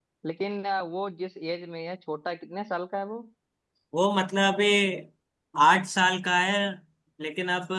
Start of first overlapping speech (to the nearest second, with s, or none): none